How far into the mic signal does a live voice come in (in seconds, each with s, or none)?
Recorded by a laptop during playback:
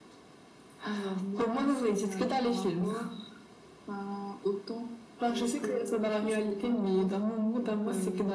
none